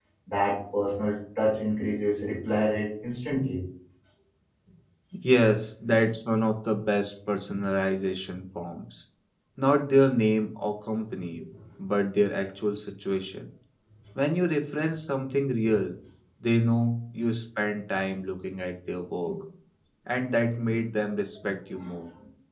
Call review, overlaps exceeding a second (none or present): none